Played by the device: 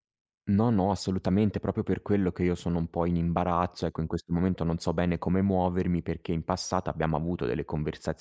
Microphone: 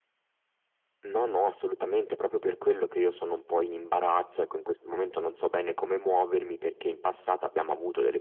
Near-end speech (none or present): none